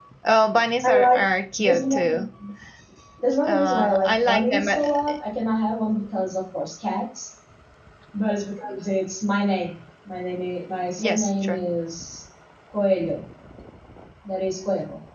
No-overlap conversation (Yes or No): No